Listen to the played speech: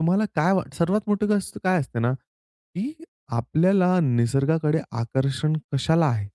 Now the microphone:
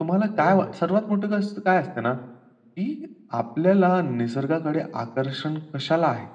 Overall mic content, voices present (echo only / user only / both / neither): both